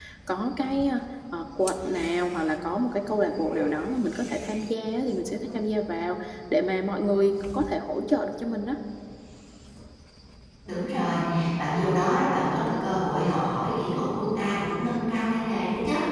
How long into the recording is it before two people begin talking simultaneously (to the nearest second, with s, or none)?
none